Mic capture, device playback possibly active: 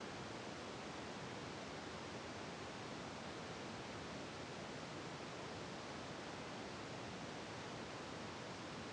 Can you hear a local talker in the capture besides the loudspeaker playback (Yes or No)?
No